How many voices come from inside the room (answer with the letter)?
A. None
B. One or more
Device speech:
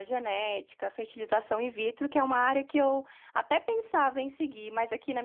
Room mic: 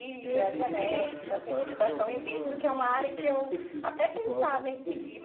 B